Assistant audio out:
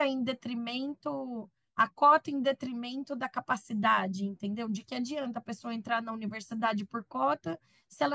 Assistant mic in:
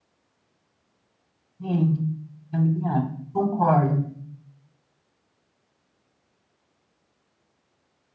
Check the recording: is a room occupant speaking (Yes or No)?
Yes